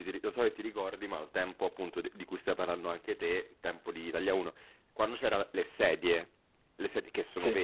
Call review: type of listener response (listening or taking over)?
listening